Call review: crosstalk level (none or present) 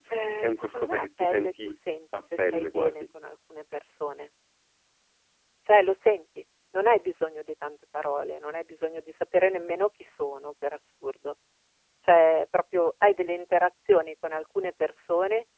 present